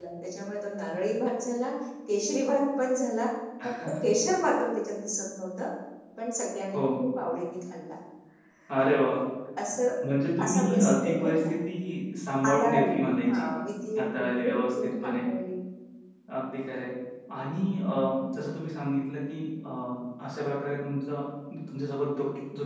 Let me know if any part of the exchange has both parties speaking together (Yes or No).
Yes